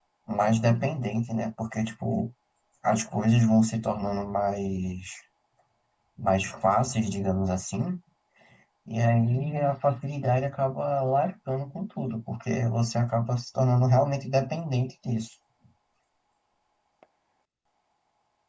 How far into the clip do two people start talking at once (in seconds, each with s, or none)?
none